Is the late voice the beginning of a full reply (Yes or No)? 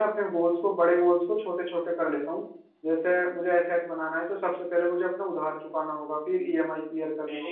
Yes